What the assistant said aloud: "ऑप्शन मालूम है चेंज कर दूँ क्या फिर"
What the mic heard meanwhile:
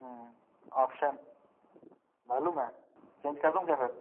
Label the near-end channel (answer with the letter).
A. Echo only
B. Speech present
A